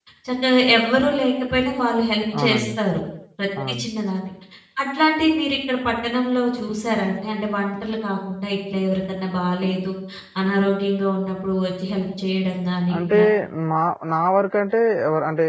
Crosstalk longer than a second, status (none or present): none